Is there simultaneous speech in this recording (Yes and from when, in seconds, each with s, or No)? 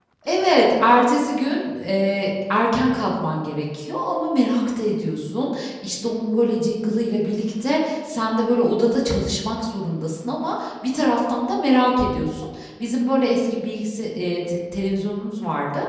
No